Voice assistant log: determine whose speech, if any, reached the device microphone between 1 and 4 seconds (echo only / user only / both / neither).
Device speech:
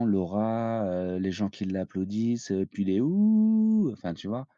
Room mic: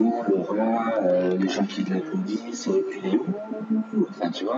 both